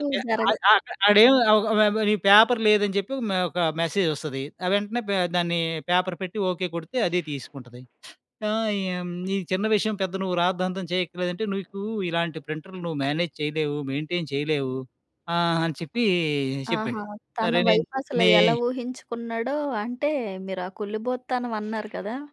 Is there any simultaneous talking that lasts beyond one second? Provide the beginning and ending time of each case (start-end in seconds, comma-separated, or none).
none